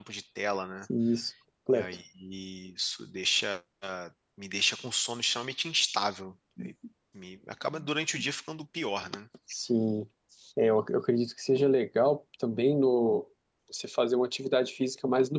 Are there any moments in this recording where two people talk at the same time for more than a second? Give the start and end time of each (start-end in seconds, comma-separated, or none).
none